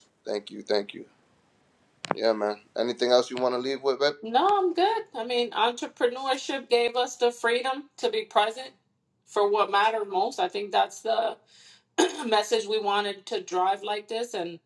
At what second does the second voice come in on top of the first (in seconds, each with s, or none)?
none